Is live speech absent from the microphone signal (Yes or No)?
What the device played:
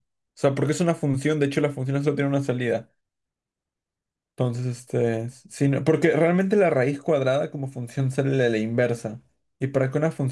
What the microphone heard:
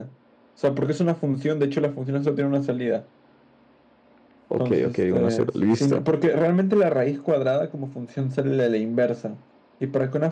No